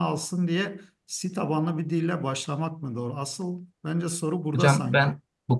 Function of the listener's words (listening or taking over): taking over